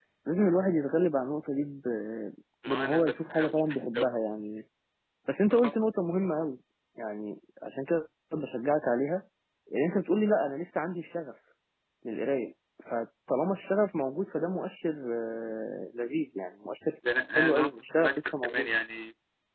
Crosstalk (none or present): present